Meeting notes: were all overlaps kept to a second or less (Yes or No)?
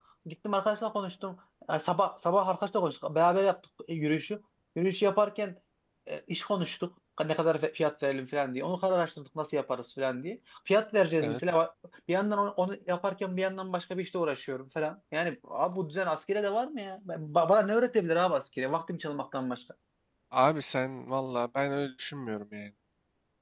Yes